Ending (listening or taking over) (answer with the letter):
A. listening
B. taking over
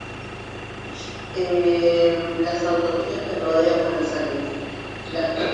A